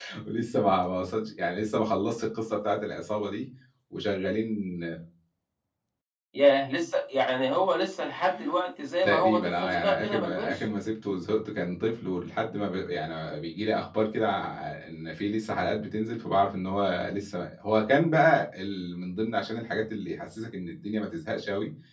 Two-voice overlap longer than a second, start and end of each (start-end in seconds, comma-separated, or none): 9.0-10.6